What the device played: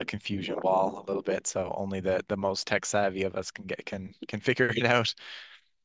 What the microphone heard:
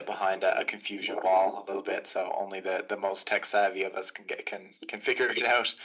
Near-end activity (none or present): none